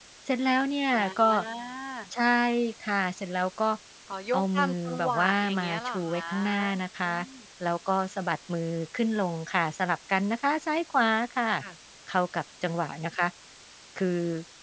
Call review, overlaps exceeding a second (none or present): present